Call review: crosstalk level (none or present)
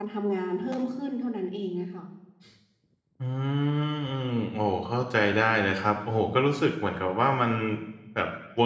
none